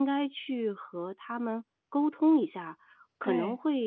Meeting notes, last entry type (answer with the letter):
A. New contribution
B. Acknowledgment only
B